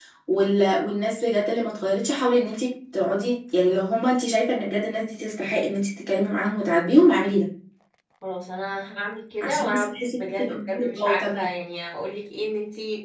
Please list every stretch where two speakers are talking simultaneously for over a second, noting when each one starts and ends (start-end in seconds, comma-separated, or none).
9.4-11.3